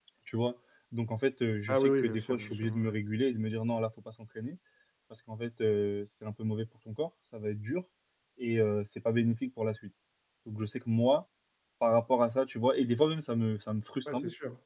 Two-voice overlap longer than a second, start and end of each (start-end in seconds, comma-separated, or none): 1.7-3.0